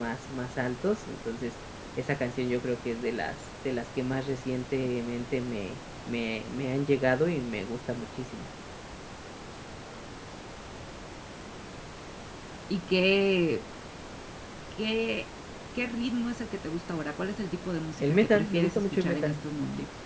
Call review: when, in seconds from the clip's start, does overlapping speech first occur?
18.0 s

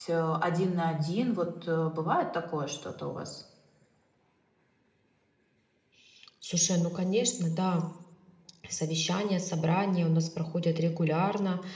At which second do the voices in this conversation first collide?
none

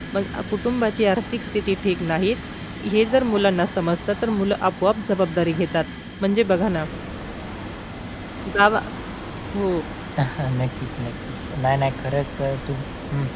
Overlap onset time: none

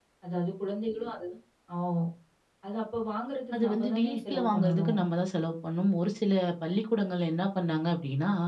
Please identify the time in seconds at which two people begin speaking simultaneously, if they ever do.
3.5 s

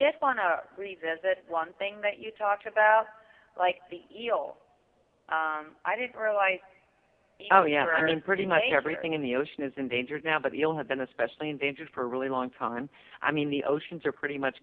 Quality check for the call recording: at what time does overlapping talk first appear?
7.5 s

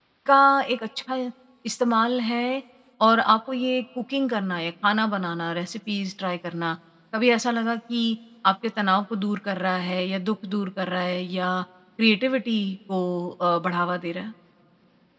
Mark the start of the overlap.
none

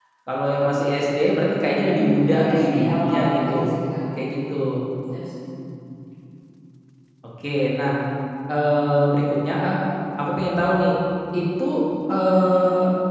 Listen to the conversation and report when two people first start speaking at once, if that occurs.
1.7 s

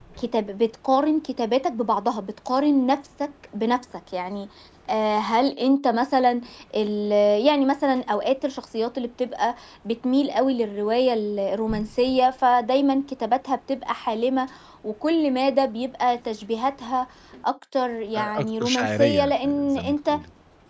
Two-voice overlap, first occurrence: 18.1 s

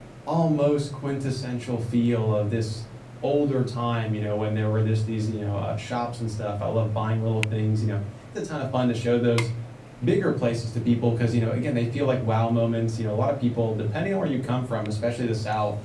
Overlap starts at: none

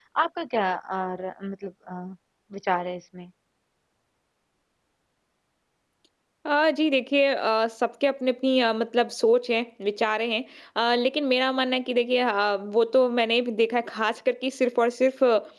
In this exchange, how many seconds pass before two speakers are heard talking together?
none

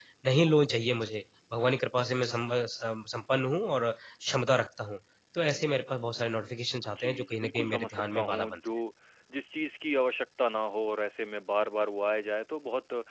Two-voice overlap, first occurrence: 6.9 s

